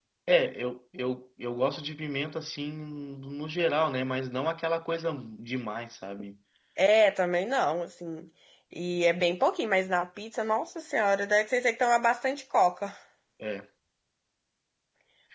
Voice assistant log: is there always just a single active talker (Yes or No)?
Yes